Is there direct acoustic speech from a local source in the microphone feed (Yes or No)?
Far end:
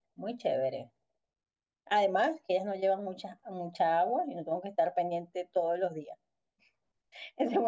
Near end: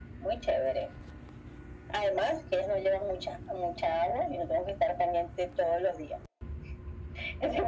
No